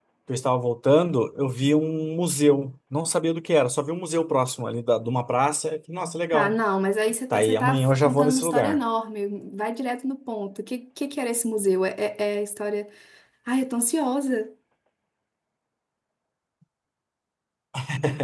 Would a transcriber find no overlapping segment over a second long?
No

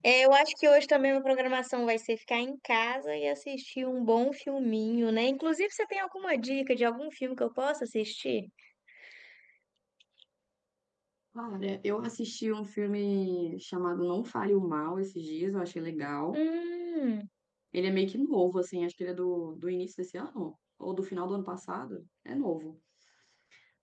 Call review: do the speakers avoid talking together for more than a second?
Yes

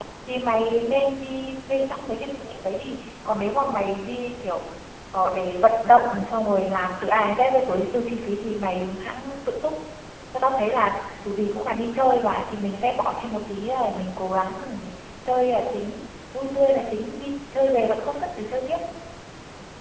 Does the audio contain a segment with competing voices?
No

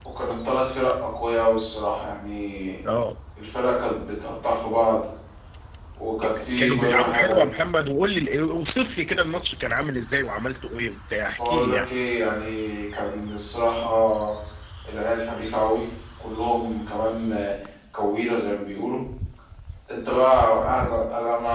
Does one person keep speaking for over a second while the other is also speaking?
Yes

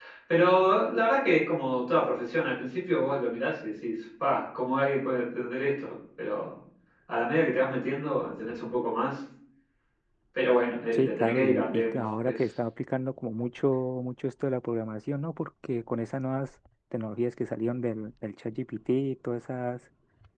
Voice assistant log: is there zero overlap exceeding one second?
No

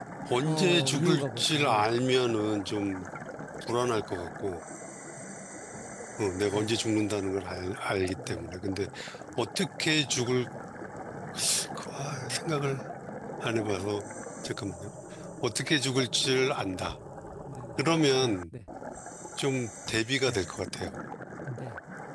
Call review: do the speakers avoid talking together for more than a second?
No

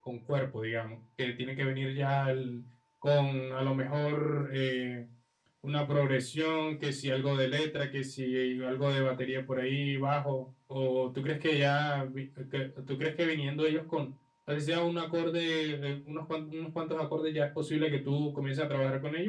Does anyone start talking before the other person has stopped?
No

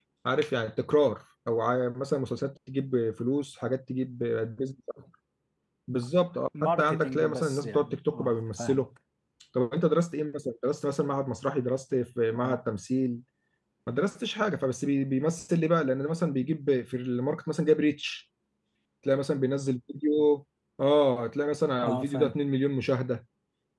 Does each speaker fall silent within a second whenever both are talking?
No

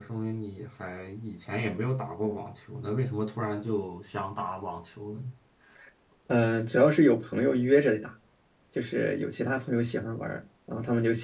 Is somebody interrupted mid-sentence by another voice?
No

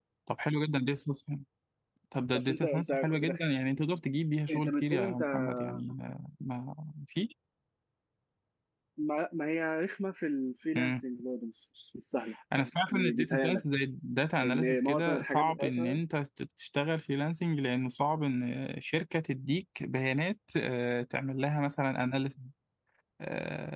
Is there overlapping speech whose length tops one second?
Yes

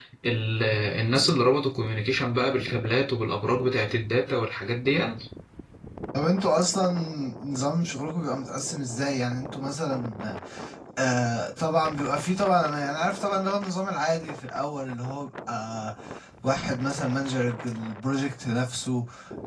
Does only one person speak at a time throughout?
Yes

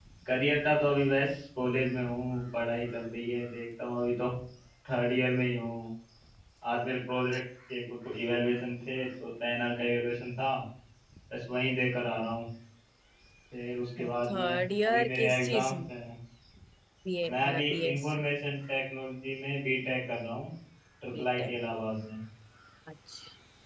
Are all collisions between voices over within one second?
No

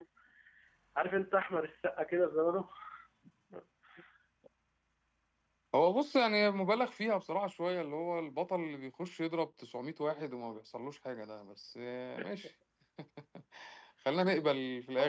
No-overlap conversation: Yes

